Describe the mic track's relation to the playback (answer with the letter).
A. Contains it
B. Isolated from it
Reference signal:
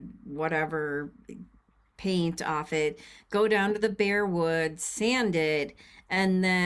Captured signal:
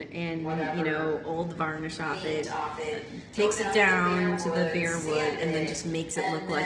A